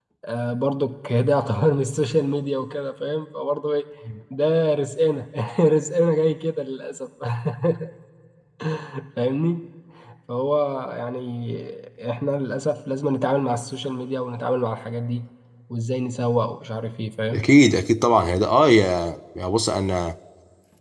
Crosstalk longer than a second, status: none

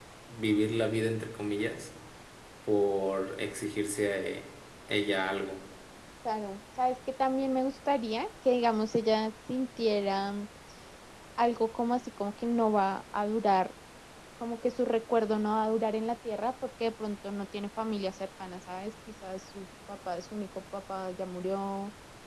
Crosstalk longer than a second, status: none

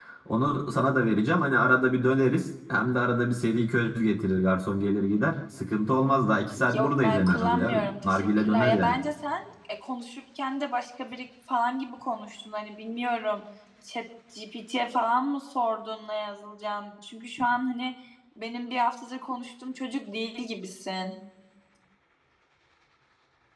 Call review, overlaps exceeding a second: present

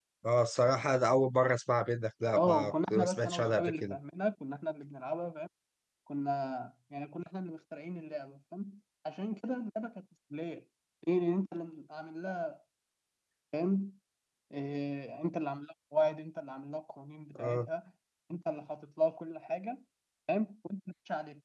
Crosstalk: present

